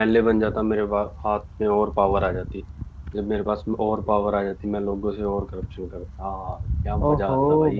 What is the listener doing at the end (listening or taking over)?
taking over